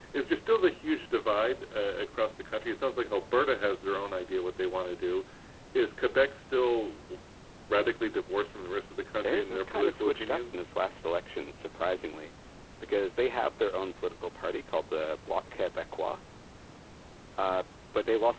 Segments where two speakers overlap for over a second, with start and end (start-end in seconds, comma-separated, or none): 9.2-10.5